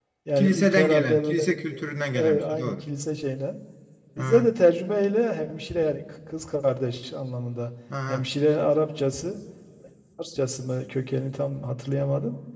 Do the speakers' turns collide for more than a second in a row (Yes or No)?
Yes